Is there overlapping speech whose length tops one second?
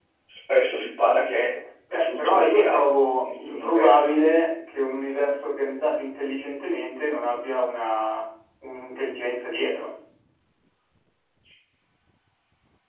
Yes, from 1.9 s

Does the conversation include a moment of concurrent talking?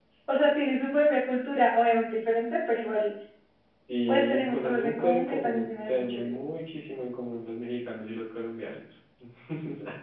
Yes, from 4.1 s

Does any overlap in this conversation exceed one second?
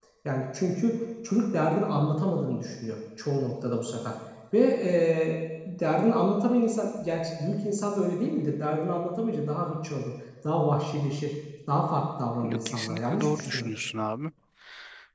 Yes, from 12.4 s

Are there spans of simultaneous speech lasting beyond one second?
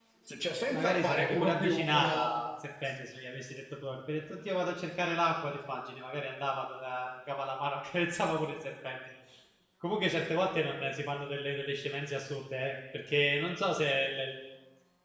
Yes, from 0.7 s

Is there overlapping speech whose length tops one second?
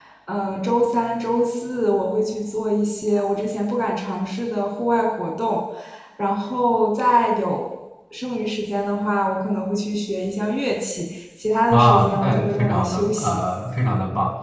Yes, from 11.7 s

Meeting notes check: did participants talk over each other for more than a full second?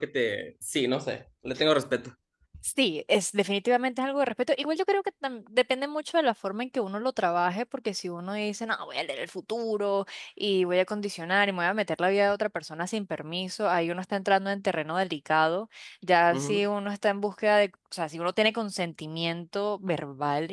No

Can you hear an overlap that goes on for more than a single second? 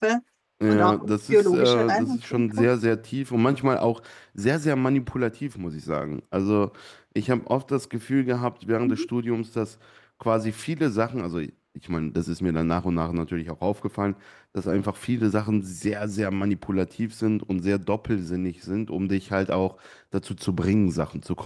Yes, from 0.7 s

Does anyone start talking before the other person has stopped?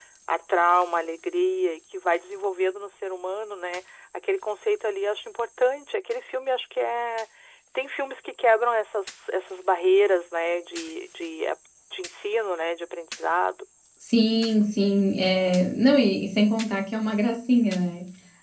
No

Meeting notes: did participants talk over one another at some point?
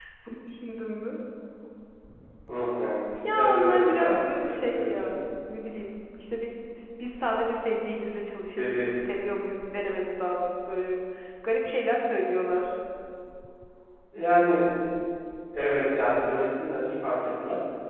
Yes, from 3.2 s

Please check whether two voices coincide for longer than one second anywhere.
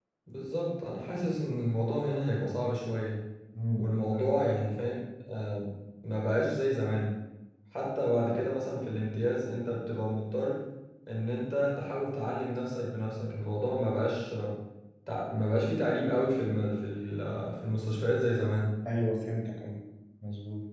No

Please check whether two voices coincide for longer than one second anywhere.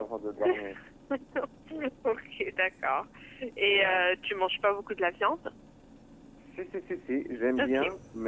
No

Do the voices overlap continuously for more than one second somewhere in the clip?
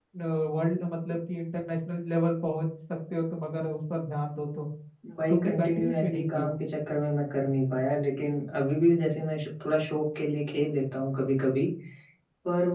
Yes, from 5.3 s

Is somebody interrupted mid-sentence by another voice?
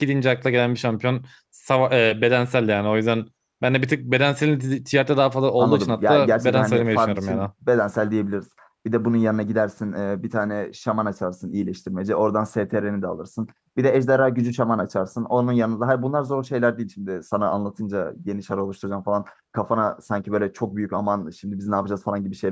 Yes, from 5.6 s

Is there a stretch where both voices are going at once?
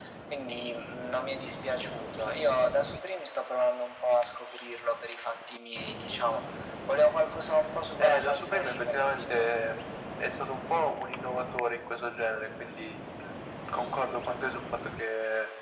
Yes, from 8.0 s

